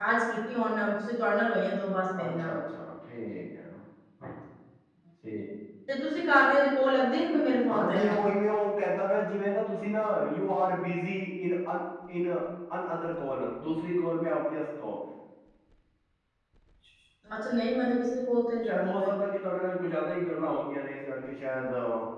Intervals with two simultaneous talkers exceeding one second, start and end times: none

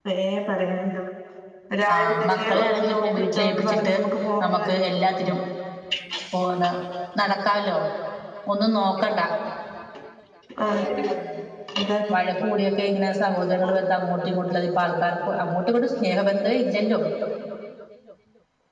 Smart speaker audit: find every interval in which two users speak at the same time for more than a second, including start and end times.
1.9-3.9

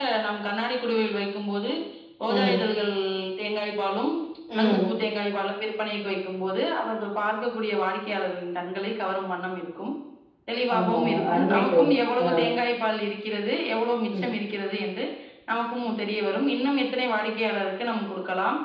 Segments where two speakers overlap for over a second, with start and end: 10.8-12.3

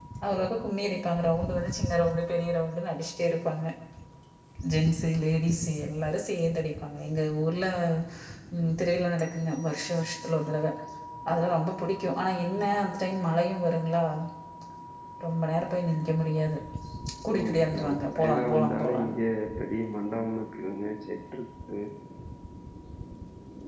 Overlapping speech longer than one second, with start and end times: 17.4-19.2

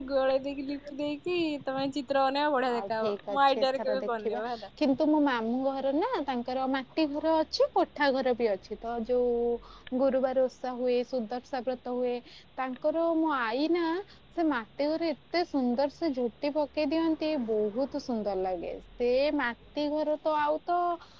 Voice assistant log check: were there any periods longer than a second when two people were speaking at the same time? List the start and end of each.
2.8-4.4

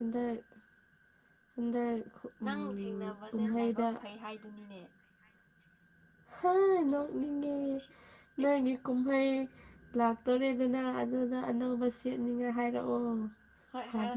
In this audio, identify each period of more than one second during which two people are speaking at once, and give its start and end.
2.4-4.0

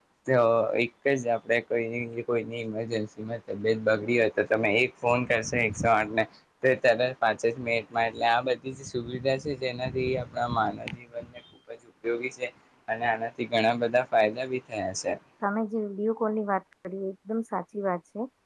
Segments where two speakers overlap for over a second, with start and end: none

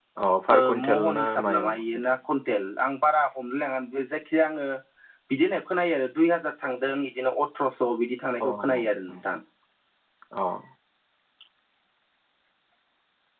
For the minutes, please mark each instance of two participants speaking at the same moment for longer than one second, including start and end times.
0.5-2.1

